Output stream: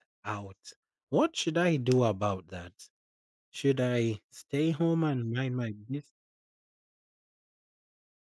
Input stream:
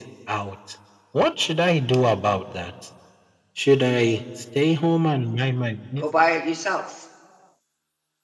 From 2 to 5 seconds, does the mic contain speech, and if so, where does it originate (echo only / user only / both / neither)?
echo only